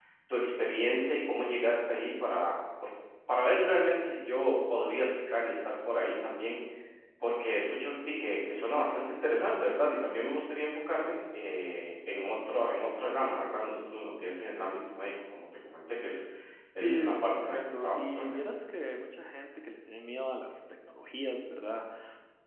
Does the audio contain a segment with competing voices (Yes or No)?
Yes